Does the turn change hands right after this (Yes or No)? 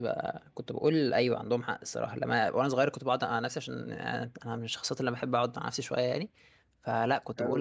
No